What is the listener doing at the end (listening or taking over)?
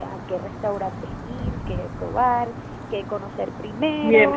taking over